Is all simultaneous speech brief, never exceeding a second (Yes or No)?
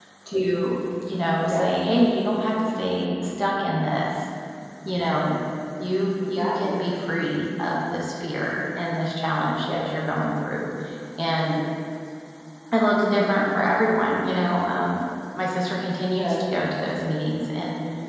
Yes